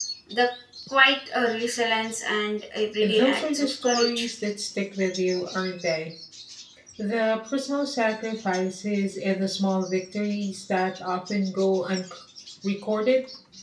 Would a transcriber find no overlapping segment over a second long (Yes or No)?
No